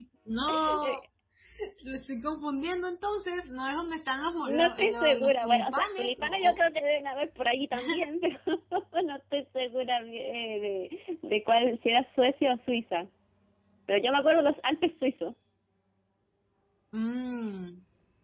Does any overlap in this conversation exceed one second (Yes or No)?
Yes